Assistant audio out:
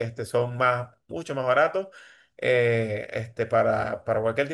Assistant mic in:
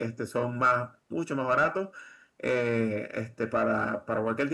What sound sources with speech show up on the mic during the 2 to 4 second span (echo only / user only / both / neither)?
echo only